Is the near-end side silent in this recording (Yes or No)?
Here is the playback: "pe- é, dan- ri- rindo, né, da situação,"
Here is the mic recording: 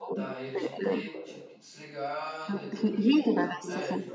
No